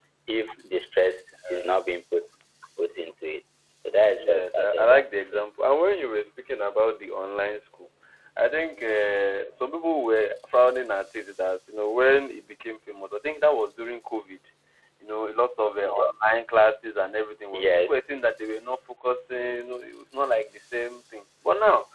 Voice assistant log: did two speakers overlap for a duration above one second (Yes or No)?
Yes